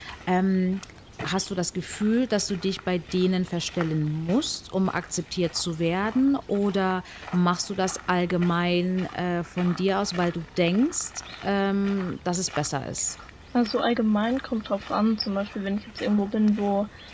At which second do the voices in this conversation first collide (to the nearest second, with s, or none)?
none